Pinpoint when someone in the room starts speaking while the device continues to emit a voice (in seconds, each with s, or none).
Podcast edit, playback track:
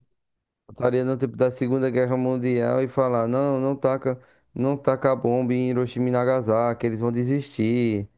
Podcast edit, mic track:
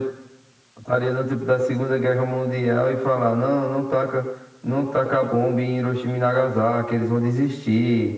none